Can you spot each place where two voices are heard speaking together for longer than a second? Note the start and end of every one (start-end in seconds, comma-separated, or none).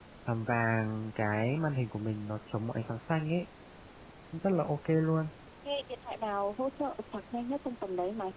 none